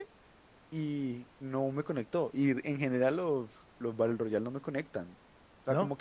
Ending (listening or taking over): listening